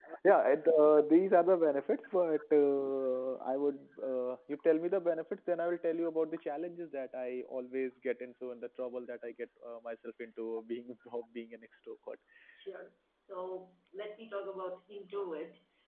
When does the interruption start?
none

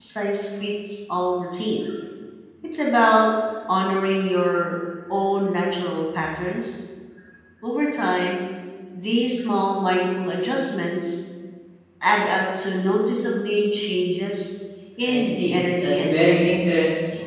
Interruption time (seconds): 15.1 s

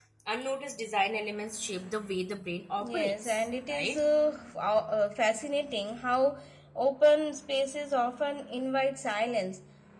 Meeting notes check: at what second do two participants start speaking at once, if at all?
2.8 s

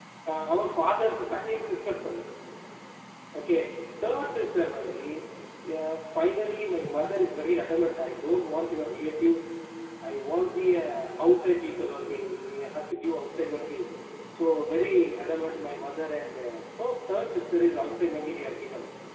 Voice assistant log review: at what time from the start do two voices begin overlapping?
none

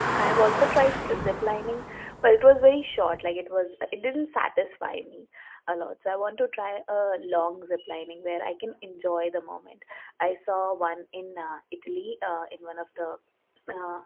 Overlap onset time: none

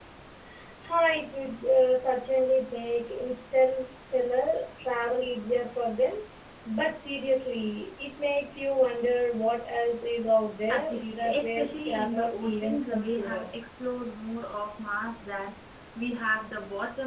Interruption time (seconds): 10.7 s

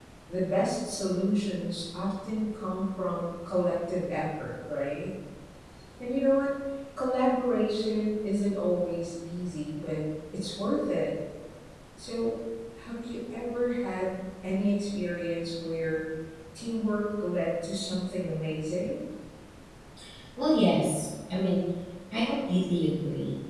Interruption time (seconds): none

